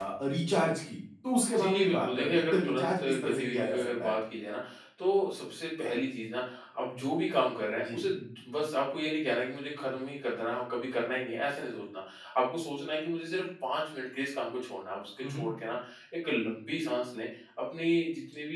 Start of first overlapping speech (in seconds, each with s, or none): 1.6 s